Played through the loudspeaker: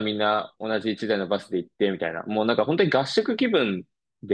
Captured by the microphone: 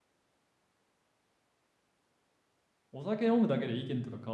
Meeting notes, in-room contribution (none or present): present